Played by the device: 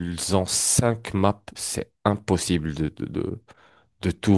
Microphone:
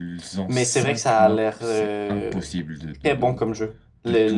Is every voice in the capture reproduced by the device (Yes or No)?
No